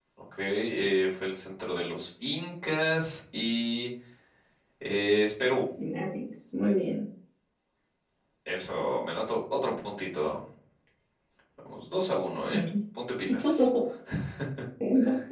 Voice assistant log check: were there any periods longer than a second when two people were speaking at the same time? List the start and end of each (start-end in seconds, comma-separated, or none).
none